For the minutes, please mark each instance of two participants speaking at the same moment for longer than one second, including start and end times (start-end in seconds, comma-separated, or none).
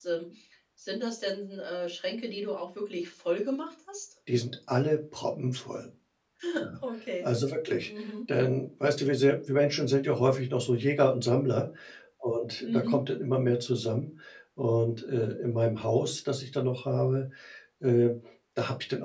none